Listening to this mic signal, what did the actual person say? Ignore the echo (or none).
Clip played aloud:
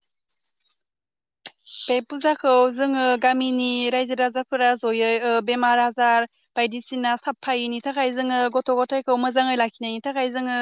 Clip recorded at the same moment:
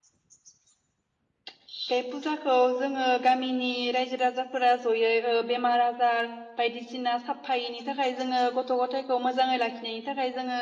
none